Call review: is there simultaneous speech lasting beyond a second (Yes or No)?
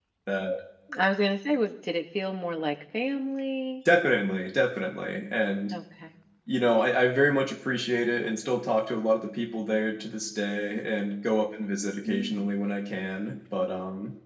No